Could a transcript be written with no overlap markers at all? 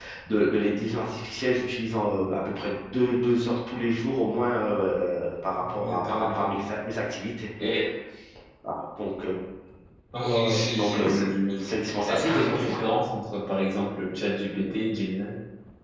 No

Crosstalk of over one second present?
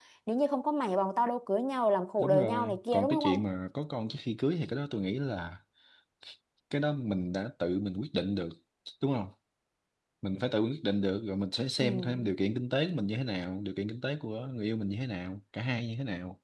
Yes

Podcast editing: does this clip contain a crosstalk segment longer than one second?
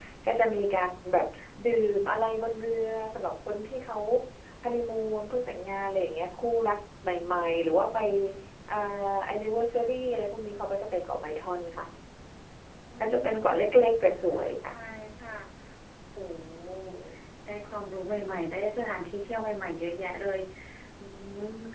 No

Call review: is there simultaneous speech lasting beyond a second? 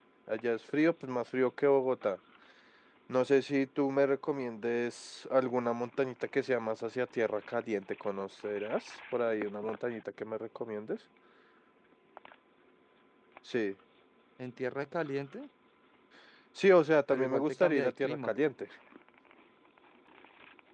Yes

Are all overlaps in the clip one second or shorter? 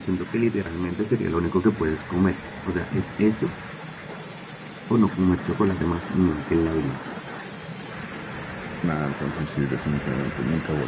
Yes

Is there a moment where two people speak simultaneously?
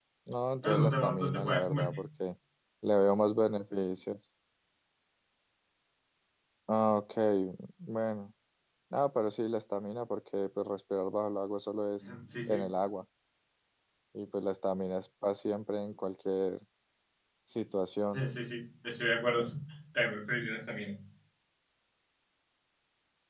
Yes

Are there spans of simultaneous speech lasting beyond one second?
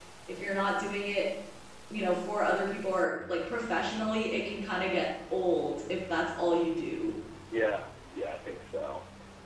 No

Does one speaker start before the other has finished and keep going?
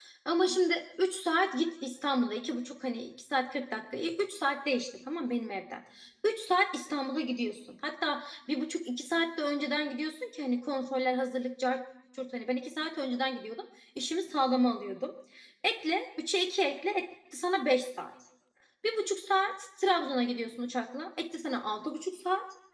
No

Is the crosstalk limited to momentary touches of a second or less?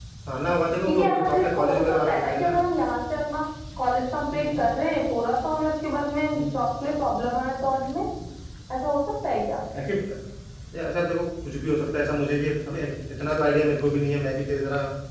No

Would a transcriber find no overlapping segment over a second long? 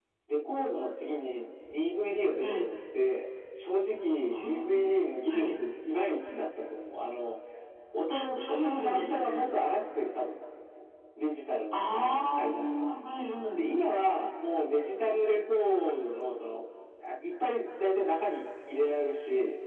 No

